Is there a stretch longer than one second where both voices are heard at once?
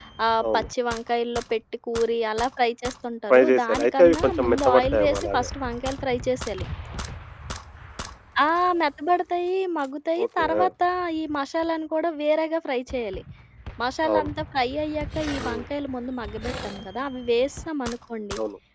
Yes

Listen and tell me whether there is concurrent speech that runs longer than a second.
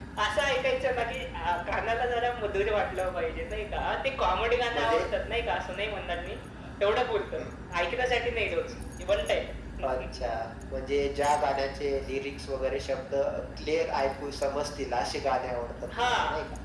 No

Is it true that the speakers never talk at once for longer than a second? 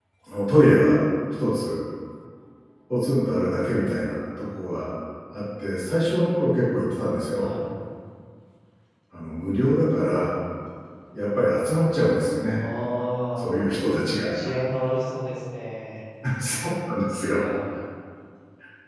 Yes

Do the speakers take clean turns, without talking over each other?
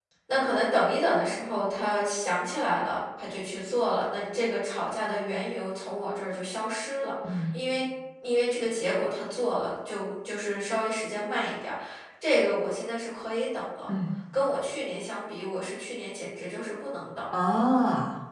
Yes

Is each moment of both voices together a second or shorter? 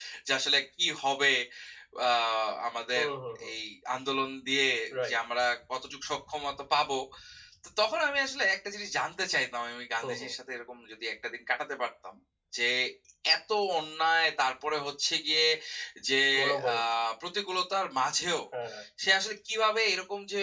Yes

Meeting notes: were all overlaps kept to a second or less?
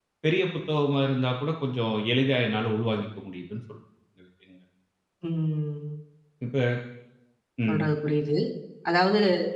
Yes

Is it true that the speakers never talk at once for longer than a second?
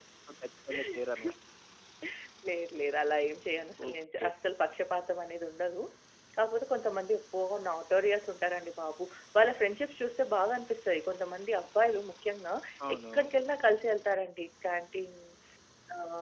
Yes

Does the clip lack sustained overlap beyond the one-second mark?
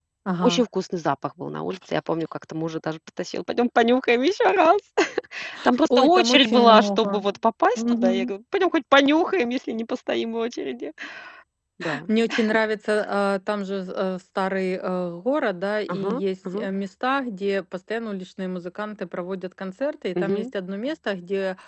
No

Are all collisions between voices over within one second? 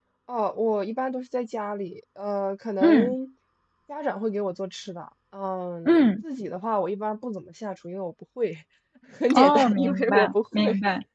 No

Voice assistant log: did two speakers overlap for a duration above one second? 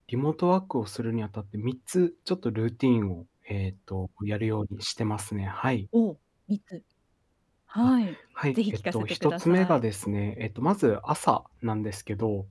Yes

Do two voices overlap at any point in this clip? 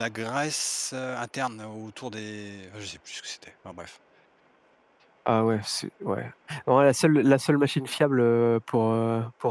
No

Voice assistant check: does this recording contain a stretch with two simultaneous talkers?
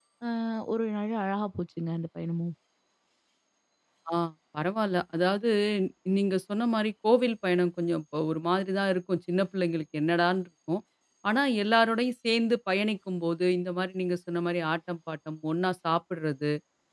No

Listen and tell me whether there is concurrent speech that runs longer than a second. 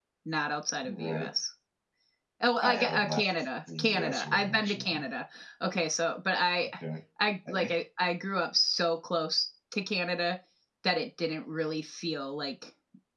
Yes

